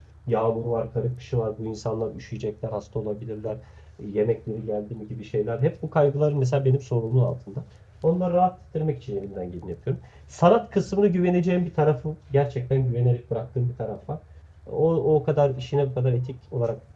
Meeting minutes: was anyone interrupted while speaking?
No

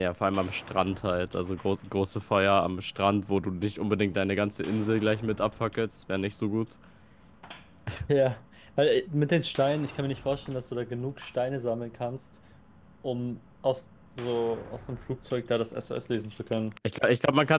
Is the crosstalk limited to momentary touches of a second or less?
Yes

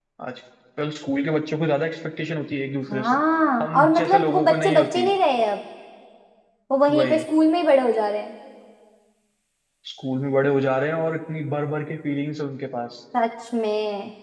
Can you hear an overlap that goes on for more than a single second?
Yes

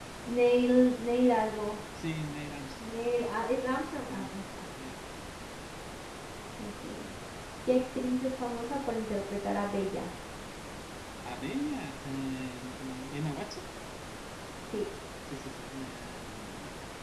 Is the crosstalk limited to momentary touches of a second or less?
Yes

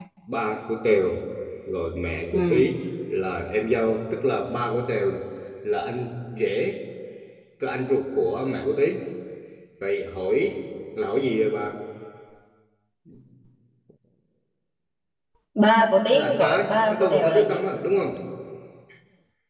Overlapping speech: Yes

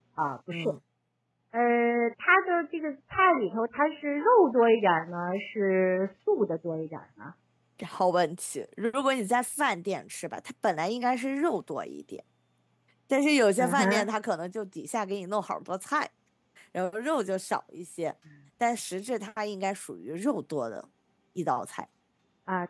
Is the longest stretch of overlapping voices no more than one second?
Yes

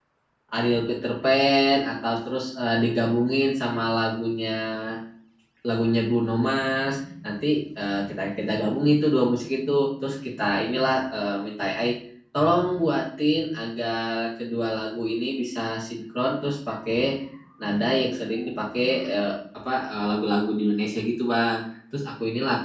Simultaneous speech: No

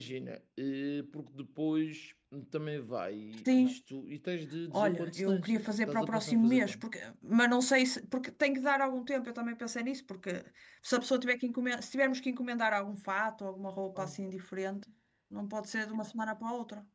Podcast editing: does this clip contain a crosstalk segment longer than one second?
Yes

